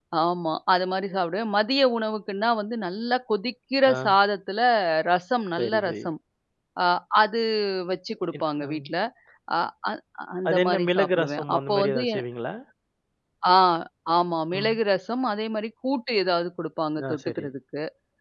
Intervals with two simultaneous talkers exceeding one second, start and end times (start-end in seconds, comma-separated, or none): 10.5-12.2